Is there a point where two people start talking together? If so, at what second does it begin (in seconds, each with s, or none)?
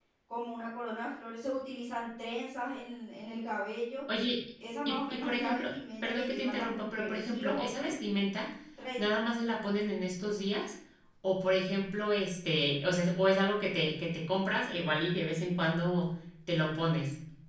4.9 s